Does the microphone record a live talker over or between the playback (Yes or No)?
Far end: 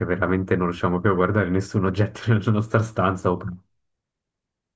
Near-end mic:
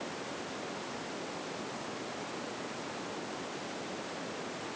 No